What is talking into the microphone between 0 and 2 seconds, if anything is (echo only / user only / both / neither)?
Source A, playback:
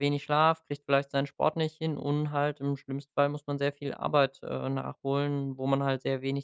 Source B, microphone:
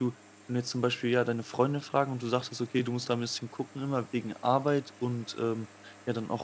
user only